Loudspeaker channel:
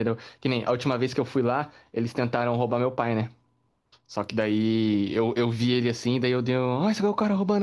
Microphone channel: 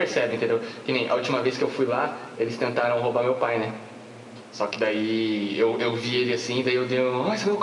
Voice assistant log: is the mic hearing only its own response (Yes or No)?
Yes